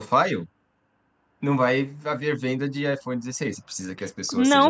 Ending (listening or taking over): taking over